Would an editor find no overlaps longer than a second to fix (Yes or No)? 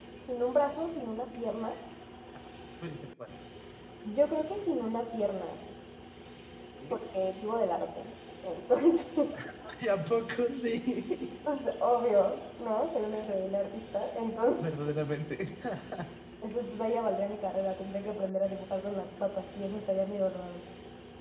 Yes